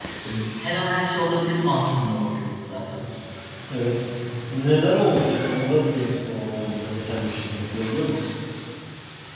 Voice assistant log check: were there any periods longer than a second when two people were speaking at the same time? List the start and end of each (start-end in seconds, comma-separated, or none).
none